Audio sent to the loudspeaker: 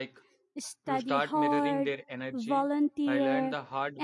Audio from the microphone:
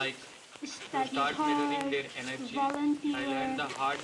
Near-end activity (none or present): none